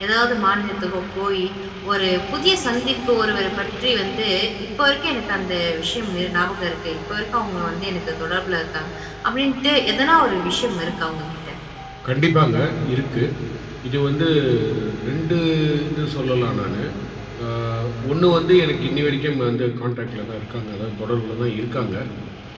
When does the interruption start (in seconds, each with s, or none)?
none